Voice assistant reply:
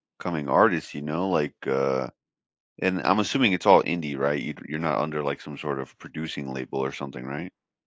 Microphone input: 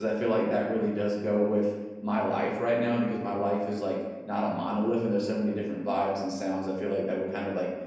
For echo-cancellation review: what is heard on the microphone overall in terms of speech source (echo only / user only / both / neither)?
user only